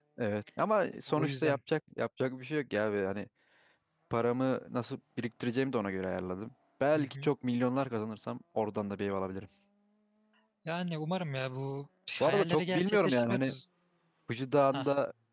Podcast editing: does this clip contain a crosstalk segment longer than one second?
Yes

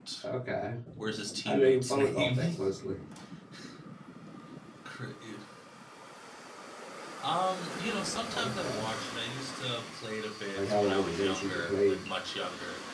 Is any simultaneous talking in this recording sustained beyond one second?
Yes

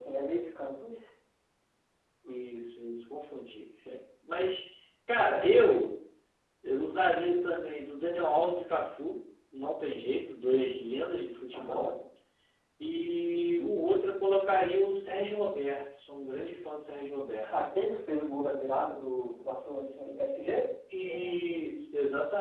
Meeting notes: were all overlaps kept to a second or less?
Yes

